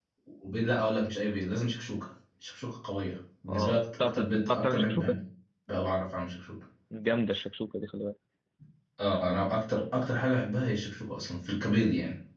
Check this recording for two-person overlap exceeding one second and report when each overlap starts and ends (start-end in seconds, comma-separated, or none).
3.5-5.2